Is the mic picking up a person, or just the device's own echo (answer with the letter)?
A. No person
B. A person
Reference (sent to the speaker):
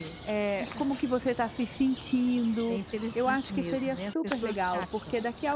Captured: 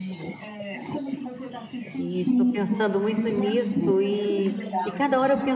B